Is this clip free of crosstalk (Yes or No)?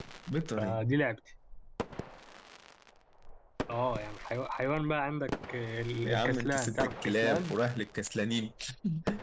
No